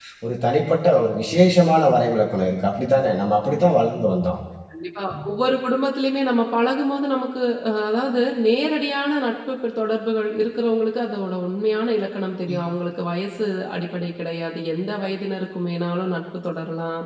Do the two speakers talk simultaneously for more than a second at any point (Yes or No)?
No